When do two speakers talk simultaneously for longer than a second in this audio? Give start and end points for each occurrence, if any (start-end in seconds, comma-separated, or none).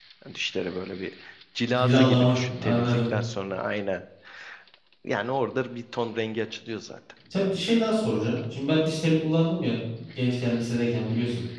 1.7-3.0